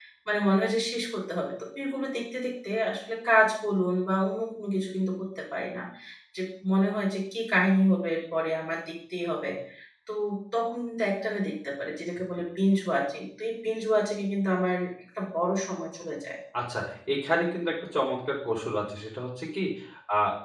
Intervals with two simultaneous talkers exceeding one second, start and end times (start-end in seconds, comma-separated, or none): none